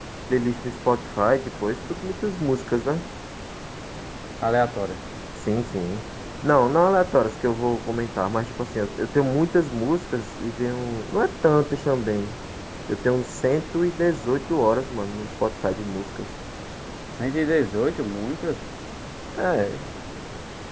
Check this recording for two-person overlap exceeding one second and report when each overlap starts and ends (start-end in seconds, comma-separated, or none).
none